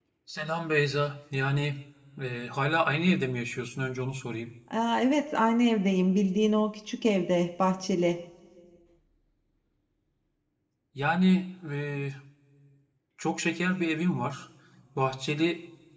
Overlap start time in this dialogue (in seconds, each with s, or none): none